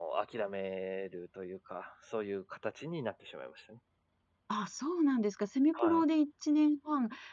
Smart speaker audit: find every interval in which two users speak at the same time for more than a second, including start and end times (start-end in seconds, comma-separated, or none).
none